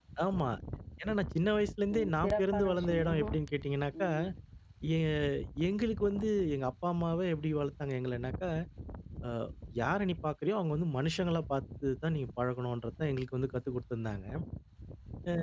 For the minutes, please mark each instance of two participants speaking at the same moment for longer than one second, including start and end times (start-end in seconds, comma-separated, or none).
1.9-3.2